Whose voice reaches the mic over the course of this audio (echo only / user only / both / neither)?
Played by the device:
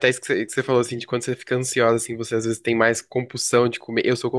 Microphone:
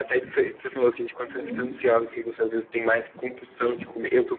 both